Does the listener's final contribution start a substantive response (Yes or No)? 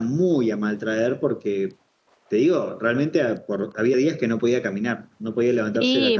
Yes